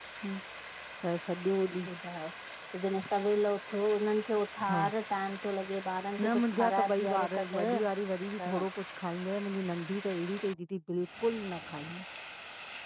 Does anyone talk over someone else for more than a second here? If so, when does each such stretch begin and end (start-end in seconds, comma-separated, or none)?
6.2-7.6